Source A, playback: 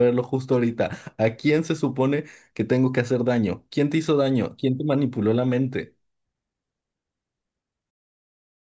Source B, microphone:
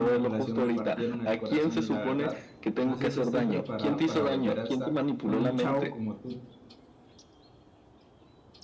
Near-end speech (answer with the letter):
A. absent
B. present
B